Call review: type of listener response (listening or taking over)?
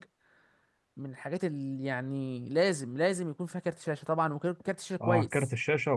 taking over